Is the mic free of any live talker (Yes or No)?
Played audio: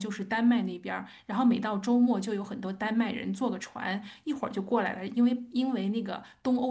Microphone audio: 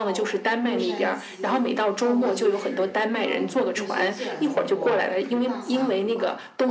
No